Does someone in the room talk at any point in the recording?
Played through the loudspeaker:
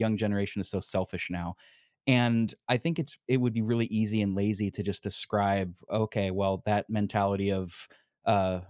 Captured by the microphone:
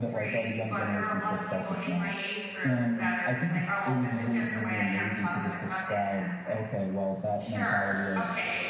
Yes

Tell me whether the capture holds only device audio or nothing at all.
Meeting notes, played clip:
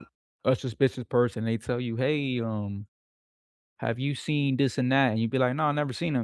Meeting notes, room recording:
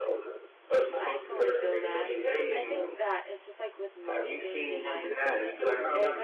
No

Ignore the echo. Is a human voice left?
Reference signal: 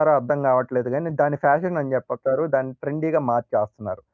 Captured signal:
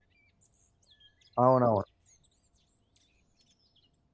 Yes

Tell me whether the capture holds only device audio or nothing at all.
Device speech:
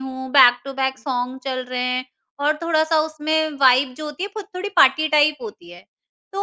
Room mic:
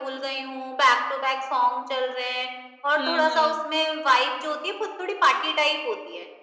No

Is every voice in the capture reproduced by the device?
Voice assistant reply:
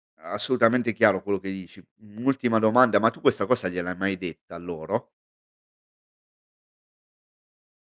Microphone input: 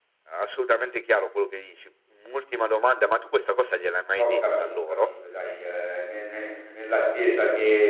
No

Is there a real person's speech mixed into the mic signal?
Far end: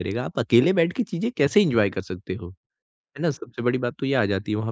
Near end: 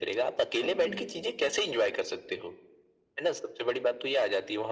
Yes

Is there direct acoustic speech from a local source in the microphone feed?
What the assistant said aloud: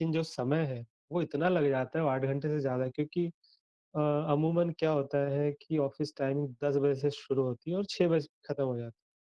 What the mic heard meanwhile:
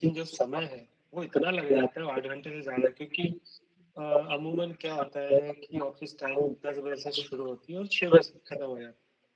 No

